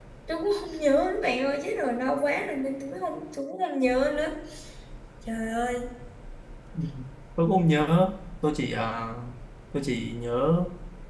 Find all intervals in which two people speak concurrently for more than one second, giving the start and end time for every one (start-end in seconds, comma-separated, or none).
none